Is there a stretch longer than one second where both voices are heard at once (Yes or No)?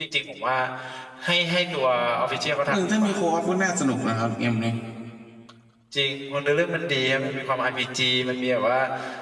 No